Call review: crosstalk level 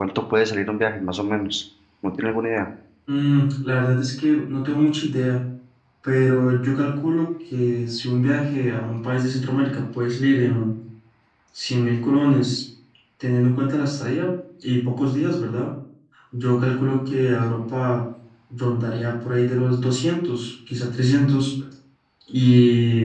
none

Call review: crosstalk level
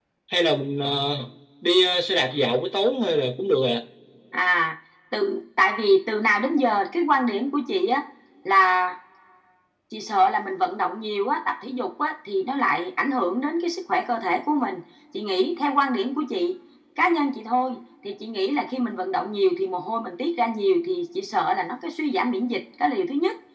none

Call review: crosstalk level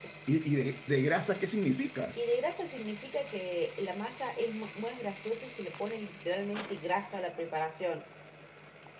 none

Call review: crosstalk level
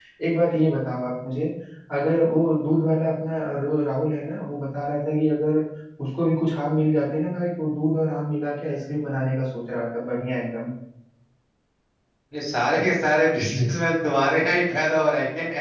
none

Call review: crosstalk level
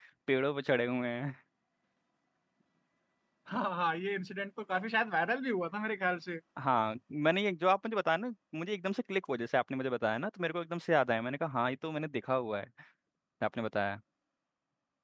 none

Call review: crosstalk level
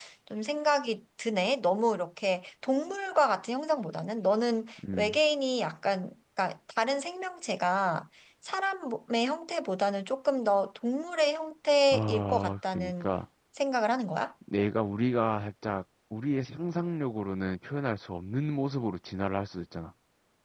present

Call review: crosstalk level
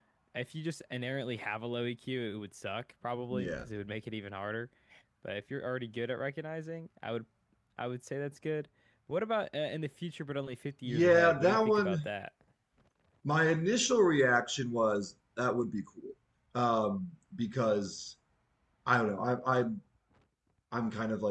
present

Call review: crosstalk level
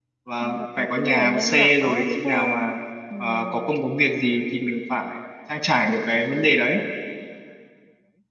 present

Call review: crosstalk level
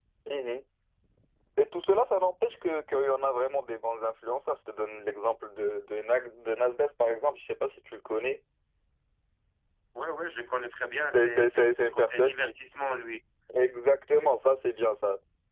present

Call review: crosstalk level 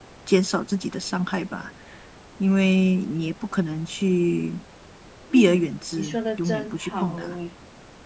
present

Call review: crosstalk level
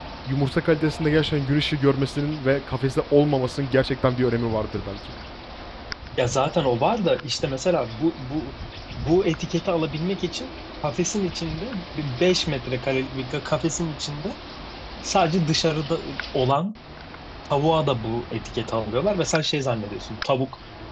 none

